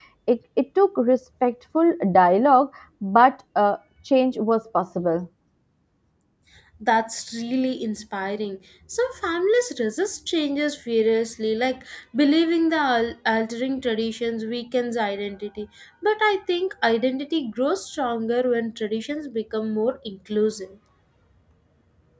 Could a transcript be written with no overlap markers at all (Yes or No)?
Yes